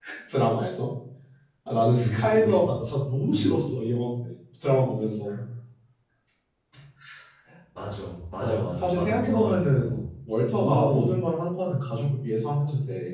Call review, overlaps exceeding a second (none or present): present